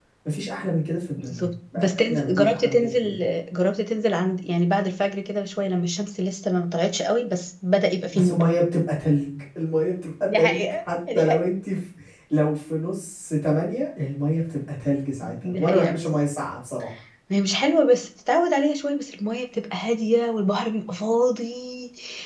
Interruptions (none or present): present